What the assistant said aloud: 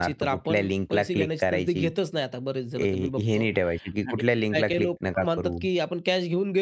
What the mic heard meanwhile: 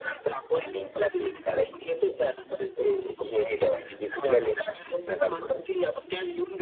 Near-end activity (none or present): present